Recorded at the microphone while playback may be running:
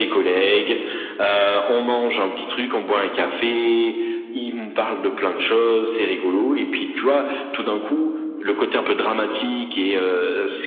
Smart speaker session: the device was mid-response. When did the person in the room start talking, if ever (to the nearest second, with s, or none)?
none